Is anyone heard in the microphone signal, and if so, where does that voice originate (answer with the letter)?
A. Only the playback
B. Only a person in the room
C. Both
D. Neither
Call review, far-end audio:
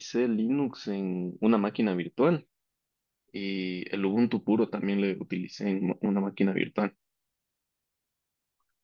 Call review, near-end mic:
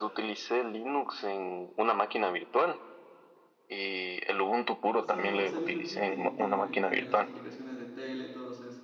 C